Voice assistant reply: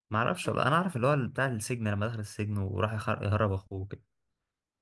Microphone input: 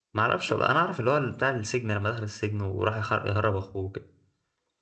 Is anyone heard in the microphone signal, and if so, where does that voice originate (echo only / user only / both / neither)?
echo only